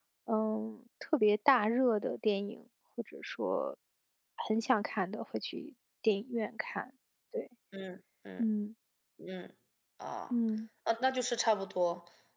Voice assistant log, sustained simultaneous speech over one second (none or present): none